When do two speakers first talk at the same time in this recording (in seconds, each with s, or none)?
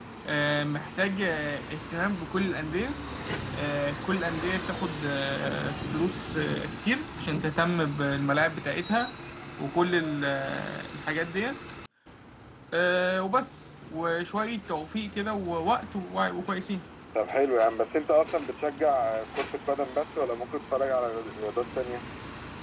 none